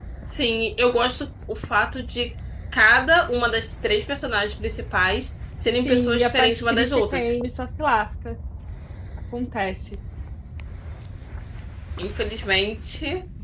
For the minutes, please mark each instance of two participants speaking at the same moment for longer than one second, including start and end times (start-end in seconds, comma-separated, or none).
5.8-7.3